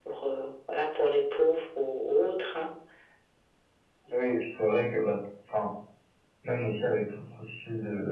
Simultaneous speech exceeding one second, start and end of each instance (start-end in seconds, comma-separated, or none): none